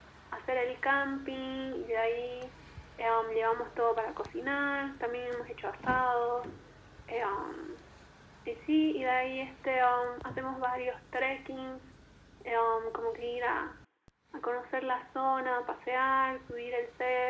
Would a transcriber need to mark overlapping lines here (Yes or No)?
No